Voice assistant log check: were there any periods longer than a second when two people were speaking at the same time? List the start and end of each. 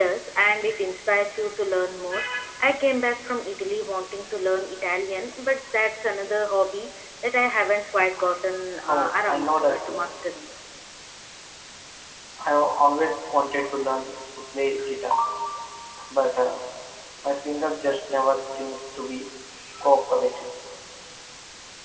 8.9-10.2

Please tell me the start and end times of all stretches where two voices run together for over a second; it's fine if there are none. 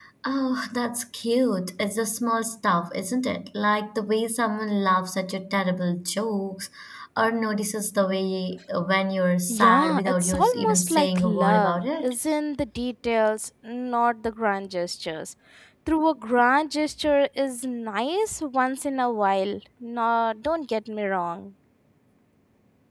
9.5-12.1

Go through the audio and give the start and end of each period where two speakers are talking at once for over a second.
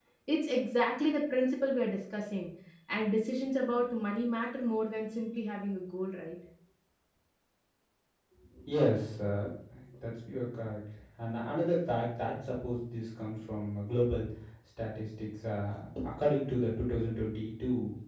none

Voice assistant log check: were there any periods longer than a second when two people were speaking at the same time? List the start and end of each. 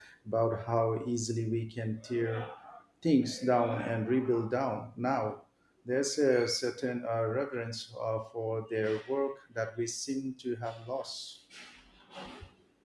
none

